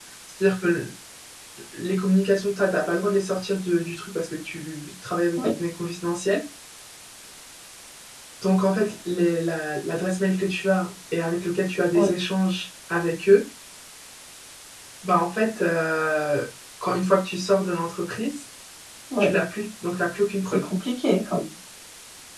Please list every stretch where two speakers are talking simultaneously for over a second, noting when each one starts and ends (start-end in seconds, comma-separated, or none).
none